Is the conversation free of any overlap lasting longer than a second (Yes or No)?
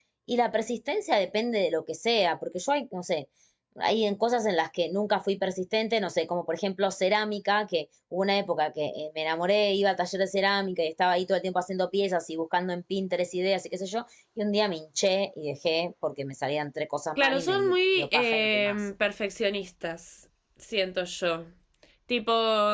No